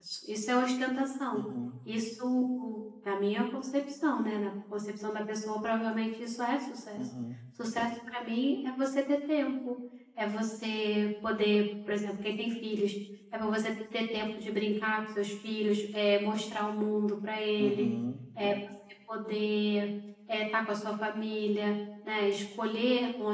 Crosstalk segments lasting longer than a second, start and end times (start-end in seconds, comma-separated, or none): none